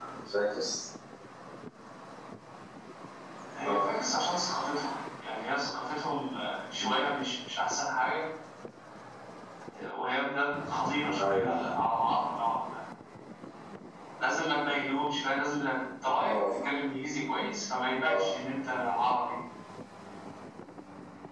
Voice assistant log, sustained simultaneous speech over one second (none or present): none